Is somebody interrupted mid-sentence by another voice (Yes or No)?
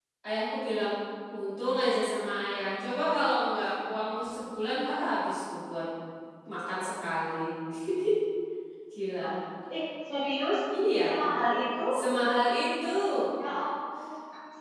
No